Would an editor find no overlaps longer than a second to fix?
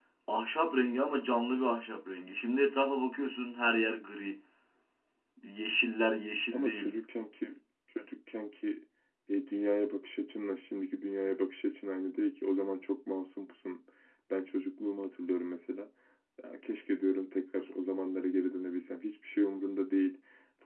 Yes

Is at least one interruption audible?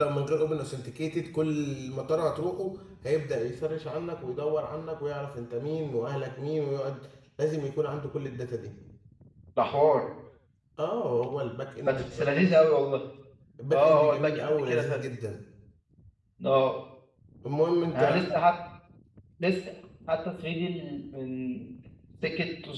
Yes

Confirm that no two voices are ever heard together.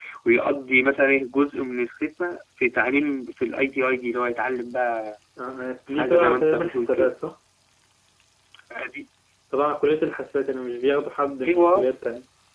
No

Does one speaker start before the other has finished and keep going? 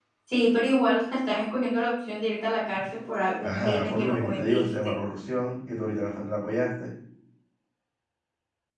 Yes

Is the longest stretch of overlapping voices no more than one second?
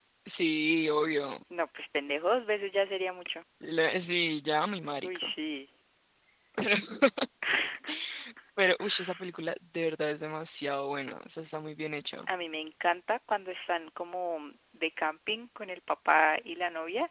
Yes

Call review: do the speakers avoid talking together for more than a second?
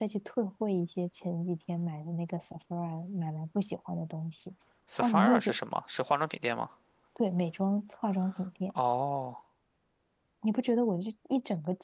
Yes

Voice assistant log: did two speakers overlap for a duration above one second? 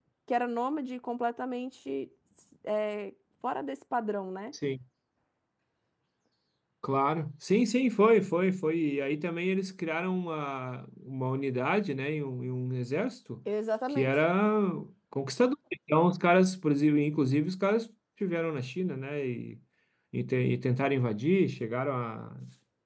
No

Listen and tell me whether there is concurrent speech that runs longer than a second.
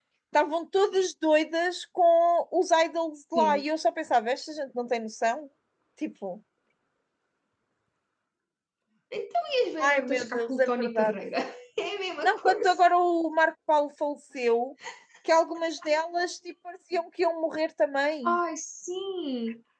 Yes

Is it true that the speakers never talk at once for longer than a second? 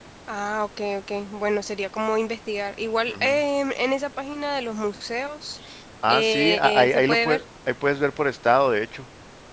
No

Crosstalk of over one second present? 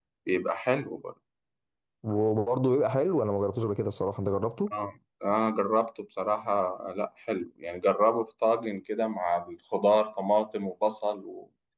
No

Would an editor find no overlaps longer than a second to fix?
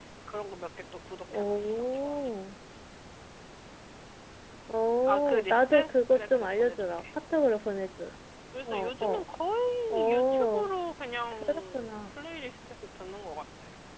No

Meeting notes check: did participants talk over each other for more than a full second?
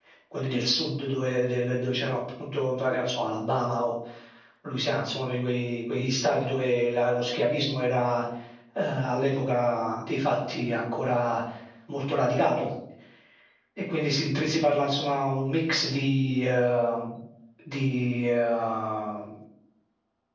No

